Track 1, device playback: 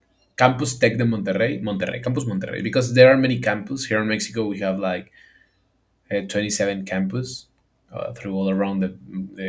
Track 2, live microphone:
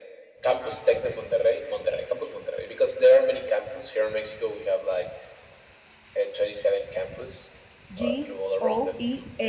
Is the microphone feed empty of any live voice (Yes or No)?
No